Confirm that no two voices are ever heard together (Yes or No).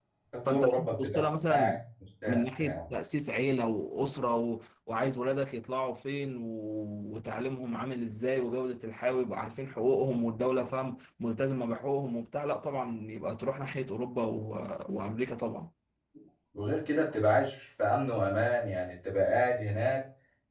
No